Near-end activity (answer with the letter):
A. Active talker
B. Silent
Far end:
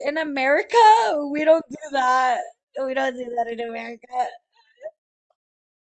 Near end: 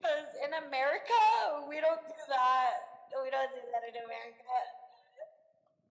B